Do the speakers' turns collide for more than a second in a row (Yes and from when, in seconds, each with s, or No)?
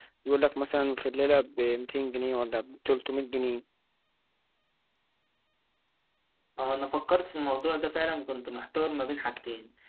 No